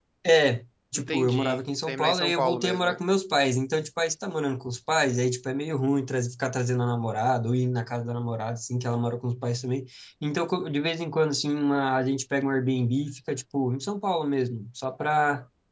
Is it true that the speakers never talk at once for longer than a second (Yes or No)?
No